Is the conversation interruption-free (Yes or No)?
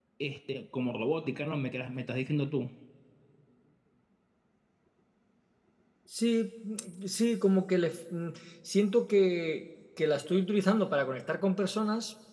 Yes